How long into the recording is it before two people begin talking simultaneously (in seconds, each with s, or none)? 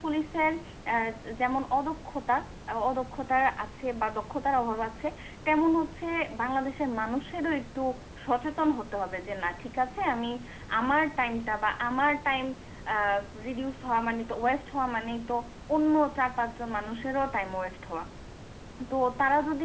none